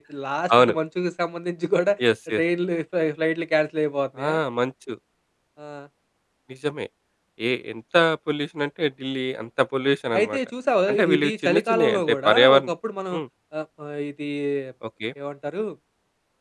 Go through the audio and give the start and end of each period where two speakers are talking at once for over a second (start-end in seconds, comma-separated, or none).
10.9-12.7